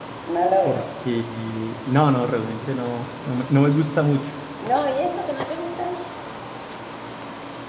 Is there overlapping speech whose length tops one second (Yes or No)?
No